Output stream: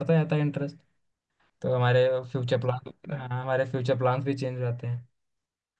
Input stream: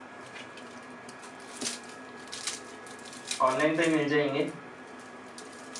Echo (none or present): none